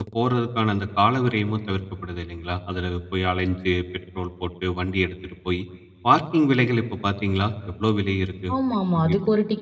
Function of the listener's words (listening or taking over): taking over